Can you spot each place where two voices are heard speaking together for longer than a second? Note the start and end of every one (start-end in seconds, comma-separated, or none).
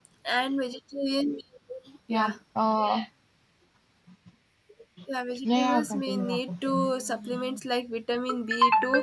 5.4-6.7